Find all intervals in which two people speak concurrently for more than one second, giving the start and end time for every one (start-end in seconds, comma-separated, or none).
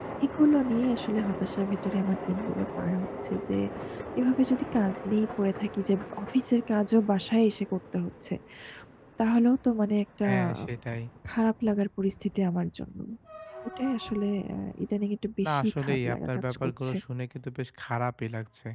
15.4-16.9